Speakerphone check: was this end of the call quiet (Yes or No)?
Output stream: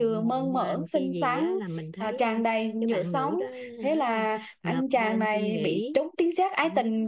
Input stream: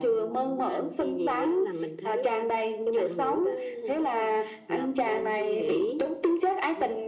Yes